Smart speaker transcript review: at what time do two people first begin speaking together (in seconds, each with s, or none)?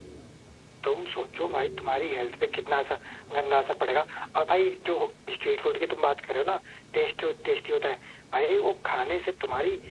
none